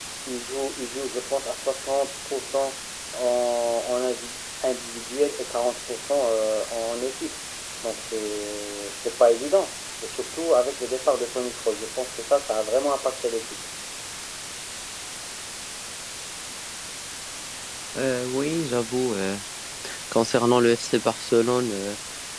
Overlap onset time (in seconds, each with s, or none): none